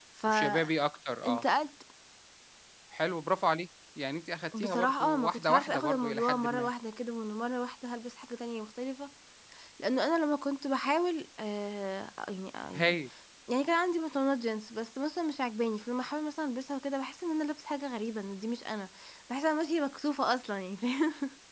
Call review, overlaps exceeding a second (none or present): present